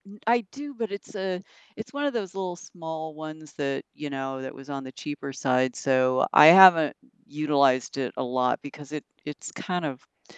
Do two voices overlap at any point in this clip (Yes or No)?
No